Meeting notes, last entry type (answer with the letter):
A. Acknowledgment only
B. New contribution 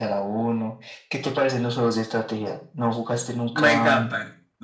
B